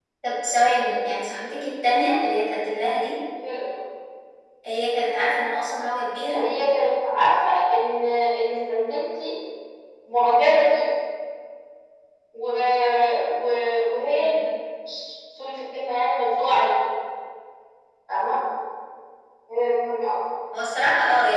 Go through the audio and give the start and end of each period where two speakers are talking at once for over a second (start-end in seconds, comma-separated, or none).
none